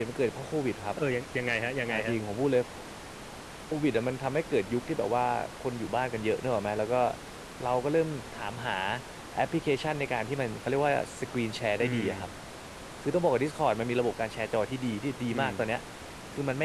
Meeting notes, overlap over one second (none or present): none